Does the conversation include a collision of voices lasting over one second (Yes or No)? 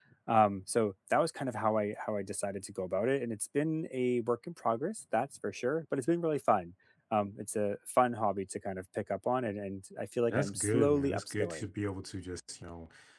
Yes